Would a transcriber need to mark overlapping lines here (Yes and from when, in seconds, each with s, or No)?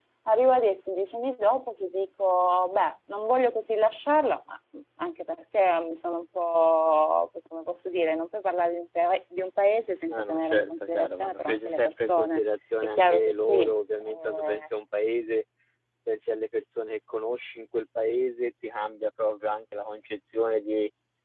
Yes, from 10.1 s